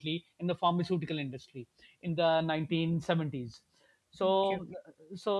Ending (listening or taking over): listening